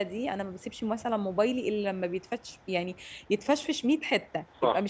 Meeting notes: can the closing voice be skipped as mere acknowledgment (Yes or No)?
No